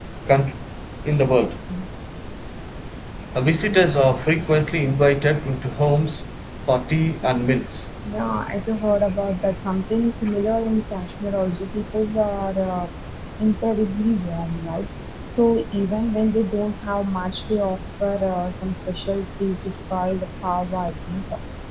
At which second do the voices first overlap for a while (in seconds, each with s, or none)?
none